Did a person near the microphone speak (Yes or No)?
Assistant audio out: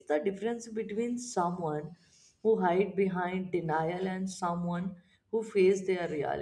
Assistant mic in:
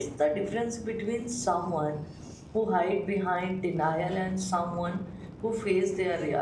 No